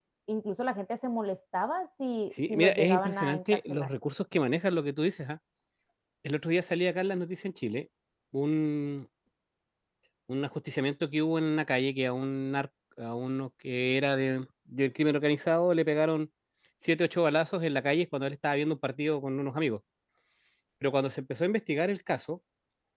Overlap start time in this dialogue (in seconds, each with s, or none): 2.4 s